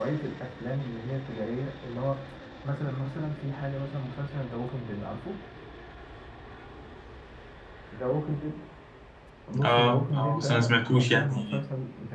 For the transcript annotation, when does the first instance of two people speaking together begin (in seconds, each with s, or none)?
9.6 s